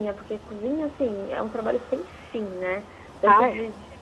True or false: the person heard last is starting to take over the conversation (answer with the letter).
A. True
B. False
B